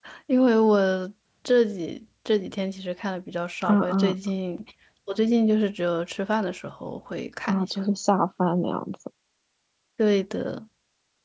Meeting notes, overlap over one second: none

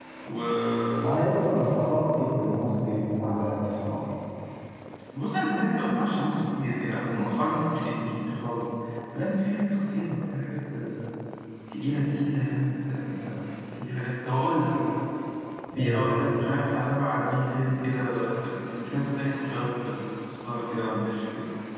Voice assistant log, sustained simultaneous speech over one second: none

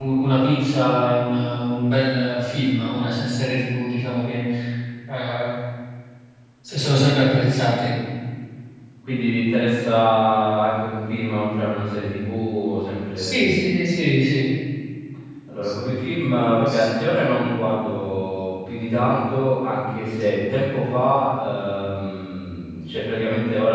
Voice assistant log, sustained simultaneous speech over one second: none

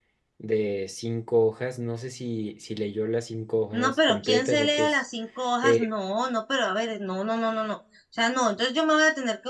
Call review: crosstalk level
present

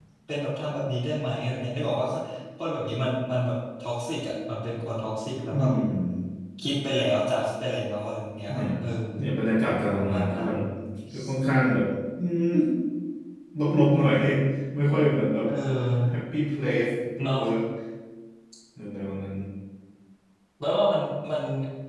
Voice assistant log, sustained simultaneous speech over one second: none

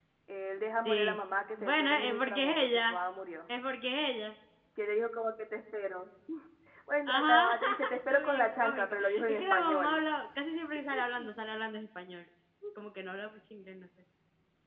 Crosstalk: present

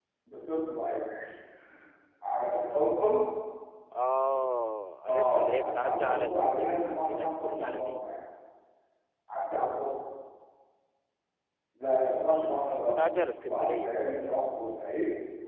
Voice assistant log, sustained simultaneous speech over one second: present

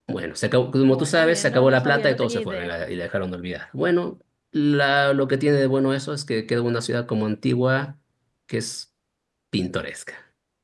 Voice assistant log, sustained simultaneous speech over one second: present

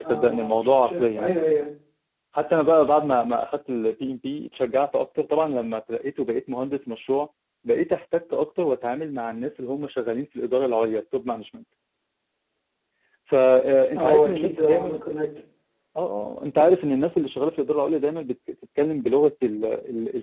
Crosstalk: present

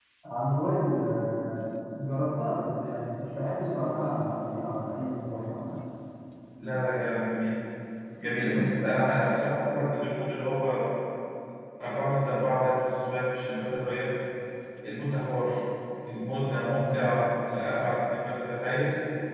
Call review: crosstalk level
none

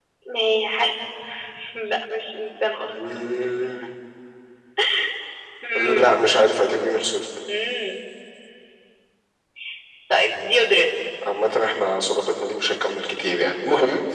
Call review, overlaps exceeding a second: none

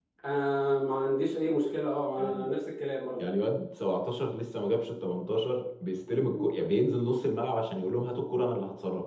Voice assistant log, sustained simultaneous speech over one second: none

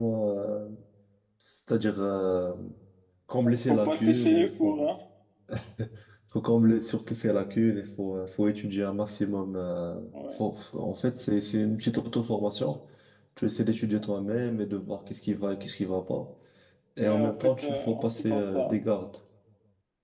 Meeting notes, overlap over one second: present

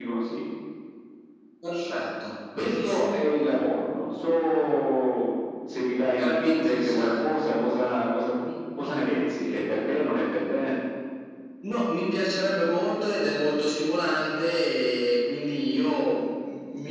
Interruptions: present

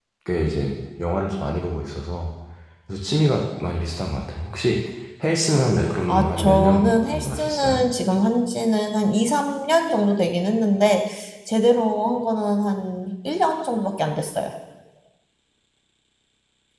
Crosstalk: present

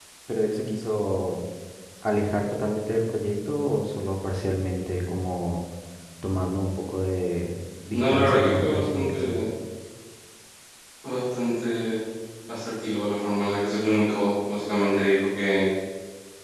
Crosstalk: present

